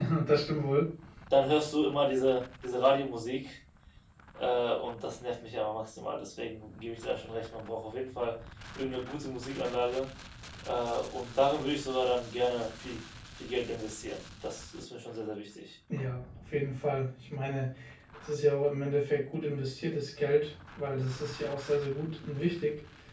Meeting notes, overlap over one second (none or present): none